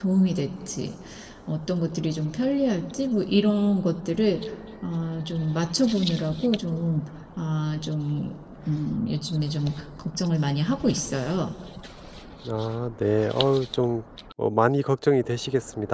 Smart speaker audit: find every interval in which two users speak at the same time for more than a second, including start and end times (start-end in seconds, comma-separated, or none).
none